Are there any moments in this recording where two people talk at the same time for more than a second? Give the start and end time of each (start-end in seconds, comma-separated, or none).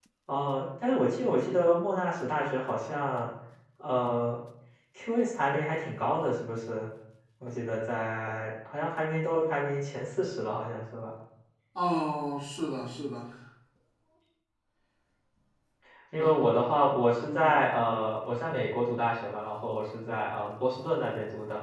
none